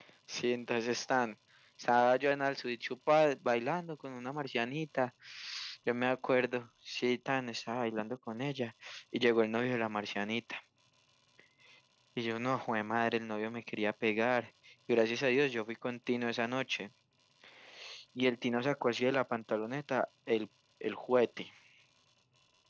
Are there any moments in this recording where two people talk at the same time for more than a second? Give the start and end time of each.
none

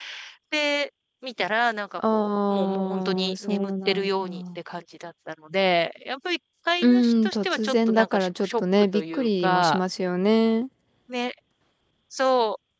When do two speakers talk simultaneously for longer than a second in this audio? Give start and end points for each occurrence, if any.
2.0-4.6, 6.8-9.8

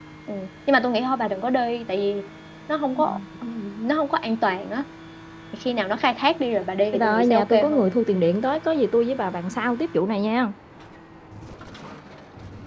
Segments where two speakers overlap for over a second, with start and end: 6.9-8.2

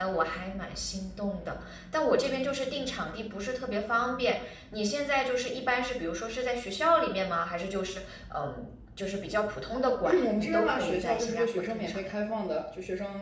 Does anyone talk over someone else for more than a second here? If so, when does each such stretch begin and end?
9.7-12.1

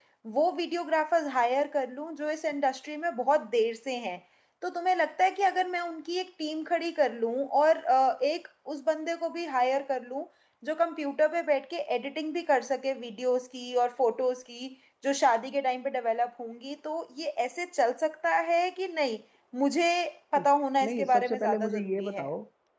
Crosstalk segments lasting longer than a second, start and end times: 20.8-22.3

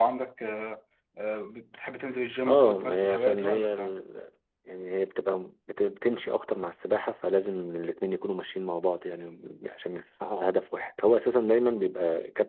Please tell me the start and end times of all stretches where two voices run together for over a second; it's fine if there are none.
2.5-4.0

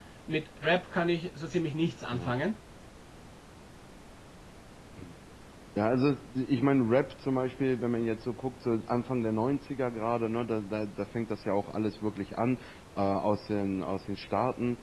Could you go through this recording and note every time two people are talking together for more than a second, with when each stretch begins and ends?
none

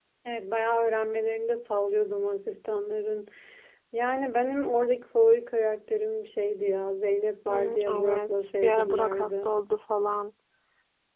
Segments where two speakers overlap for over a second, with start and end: 7.5-9.5

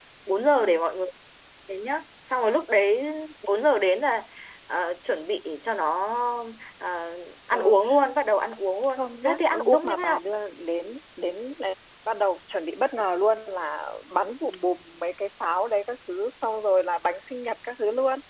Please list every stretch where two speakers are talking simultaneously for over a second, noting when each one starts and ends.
9.0-10.2

